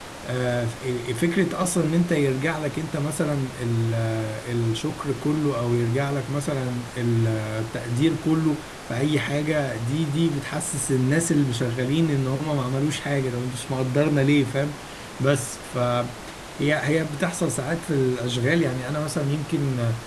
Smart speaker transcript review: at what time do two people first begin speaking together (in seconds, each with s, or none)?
none